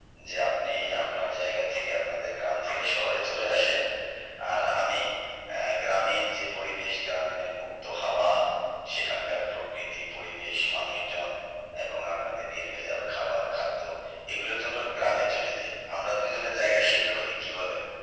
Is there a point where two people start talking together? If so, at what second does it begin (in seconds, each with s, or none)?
none